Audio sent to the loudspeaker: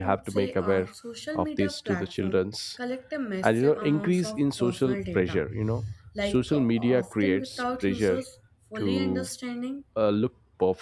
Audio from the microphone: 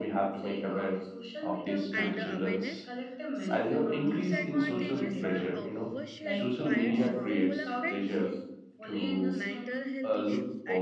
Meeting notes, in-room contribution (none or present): present